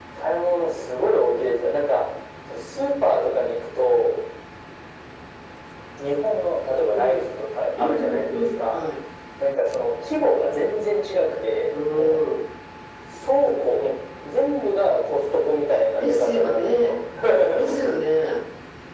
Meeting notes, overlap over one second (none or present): present